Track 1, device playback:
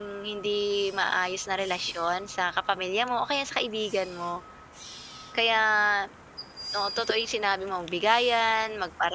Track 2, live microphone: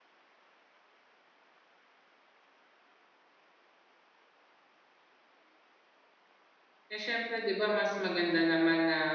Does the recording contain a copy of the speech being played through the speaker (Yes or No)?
No